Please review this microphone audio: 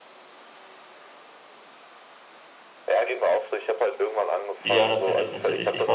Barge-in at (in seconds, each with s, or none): 4.6 s